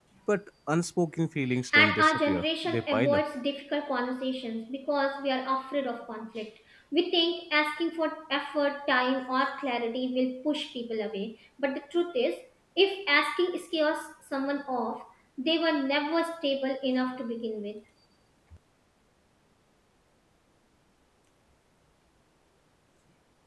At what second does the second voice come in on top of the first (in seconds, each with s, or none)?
1.7 s